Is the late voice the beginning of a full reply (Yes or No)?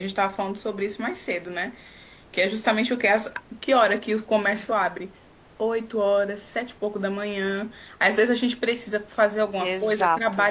No